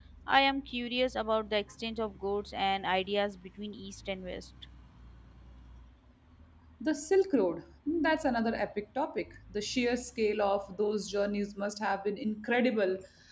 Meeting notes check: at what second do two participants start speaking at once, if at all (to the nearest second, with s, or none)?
none